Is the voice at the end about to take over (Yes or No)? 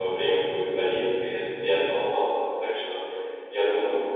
No